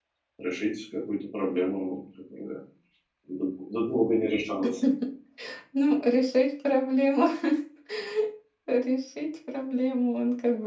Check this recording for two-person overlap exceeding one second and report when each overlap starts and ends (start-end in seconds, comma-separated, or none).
none